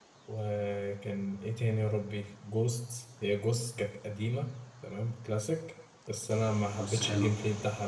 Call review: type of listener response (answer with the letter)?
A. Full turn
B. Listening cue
B